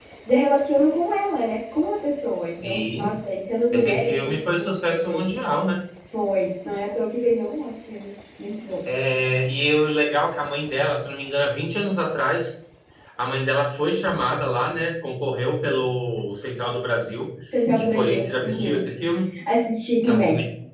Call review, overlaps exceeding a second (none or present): present